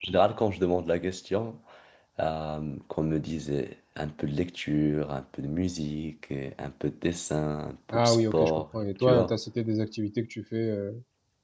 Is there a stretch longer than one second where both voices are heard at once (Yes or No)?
Yes